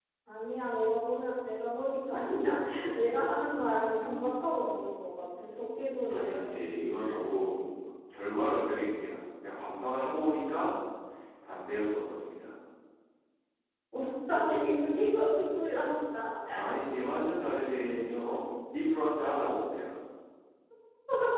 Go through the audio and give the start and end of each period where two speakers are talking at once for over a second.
none

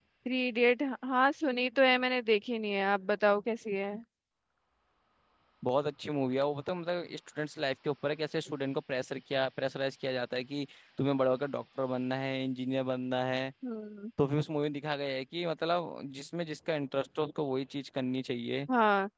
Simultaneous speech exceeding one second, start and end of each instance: none

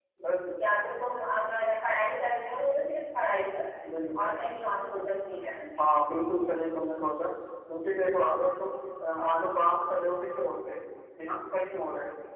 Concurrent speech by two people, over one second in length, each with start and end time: none

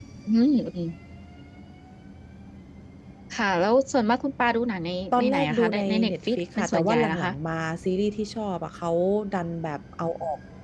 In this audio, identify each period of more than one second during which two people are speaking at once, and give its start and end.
5.1-7.3

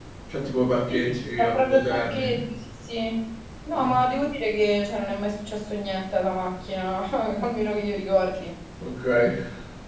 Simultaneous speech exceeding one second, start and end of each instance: 0.9-2.4

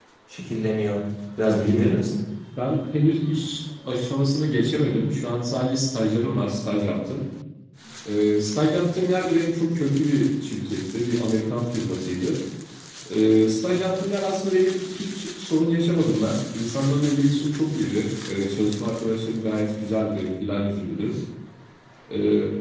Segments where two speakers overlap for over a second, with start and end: none

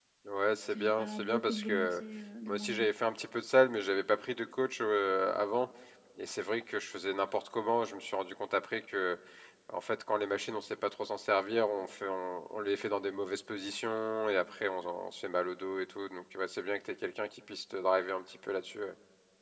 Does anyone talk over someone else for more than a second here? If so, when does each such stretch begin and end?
0.6-2.0

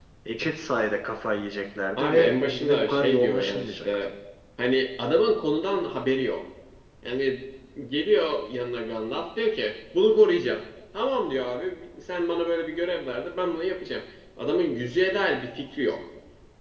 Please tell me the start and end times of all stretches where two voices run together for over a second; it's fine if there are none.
2.0-4.1

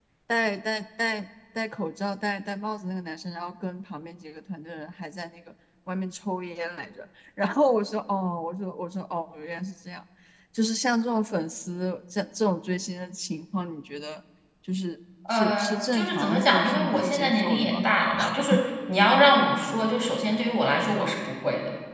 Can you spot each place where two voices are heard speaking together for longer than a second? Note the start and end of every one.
15.3-17.9

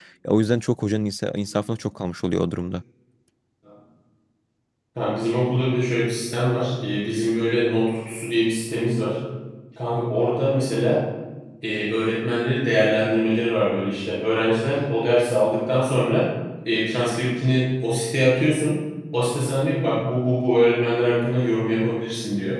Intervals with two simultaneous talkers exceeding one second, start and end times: none

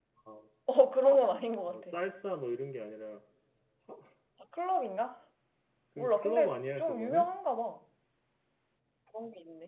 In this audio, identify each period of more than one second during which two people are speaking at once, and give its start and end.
6.0-7.3

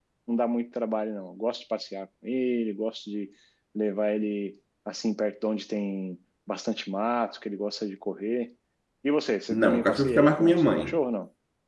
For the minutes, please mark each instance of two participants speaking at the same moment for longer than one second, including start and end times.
9.5-11.0

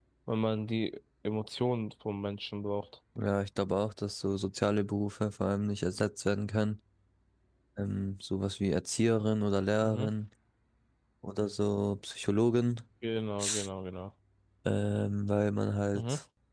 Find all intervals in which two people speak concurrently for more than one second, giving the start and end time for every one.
none

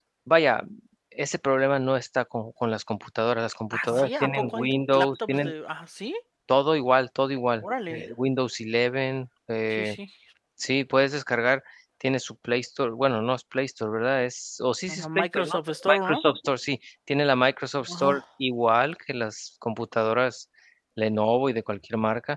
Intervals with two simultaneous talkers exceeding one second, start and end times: 3.7-5.5, 14.9-16.2

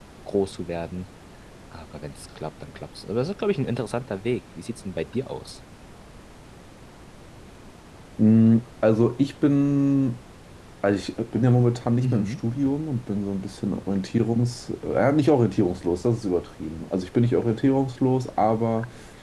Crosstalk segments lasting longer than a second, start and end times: none

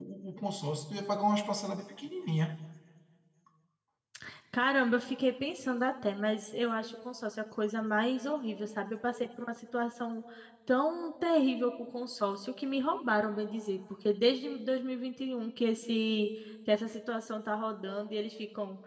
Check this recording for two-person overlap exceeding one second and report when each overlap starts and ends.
none

